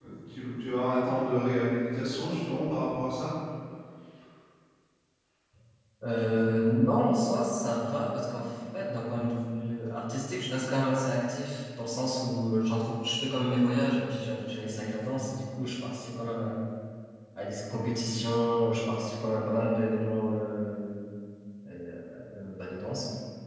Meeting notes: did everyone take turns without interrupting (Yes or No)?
Yes